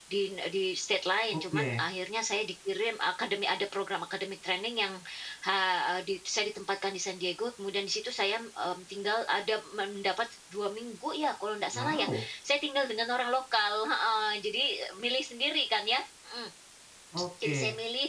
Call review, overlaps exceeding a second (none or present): none